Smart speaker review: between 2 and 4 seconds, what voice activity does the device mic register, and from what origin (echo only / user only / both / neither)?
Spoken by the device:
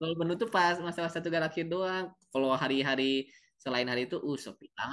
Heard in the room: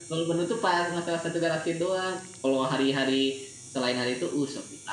echo only